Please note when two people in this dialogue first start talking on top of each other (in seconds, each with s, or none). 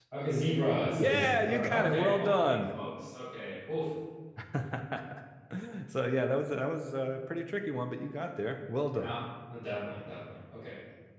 1.0 s